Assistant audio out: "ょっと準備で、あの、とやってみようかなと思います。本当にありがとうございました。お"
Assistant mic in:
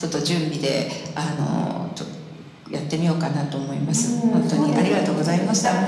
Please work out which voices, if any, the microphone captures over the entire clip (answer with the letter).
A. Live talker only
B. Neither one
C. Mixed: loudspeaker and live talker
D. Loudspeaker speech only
C